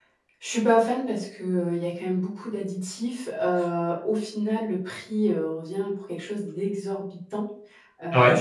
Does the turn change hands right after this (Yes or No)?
No